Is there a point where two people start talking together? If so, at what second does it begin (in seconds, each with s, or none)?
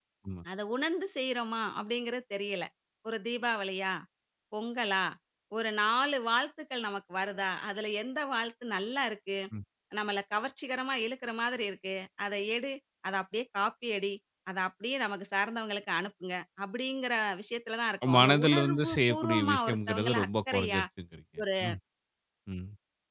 18.1 s